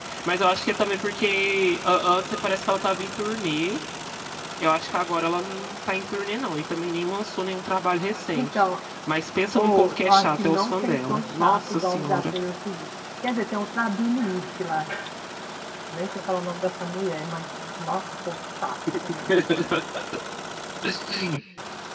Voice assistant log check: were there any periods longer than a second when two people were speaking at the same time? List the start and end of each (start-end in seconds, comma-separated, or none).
9.5-12.3